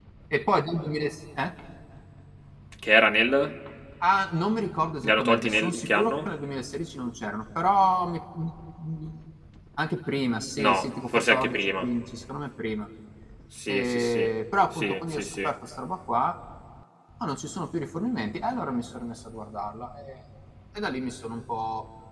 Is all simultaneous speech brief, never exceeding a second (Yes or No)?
No